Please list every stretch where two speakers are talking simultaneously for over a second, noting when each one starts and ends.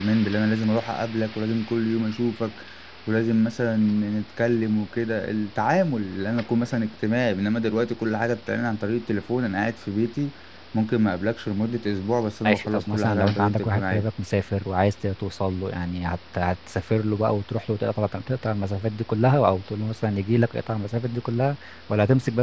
12.5-14.1

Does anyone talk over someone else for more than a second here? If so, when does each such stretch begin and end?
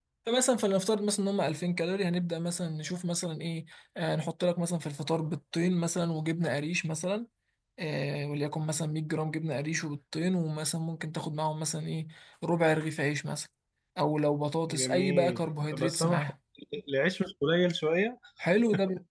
14.7-16.2

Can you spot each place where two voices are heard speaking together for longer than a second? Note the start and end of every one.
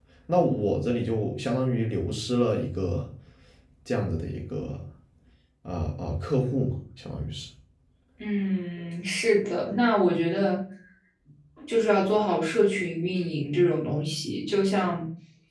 none

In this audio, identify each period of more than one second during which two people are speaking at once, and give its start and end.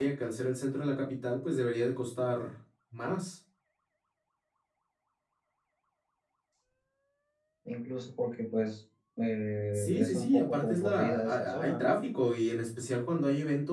9.7-11.9

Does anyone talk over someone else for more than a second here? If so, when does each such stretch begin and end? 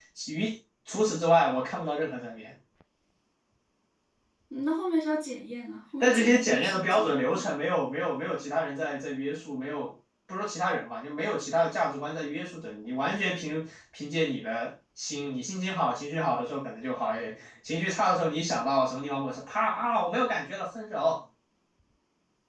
6.0-7.5

